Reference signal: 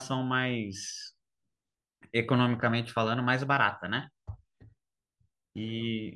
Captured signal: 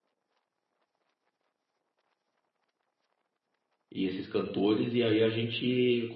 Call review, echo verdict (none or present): none